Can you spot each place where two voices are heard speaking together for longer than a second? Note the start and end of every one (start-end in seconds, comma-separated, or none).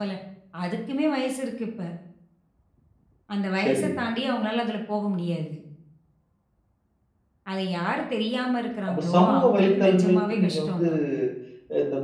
8.9-10.9